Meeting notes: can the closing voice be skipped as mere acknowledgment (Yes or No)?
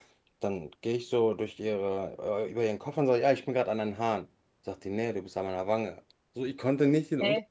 Yes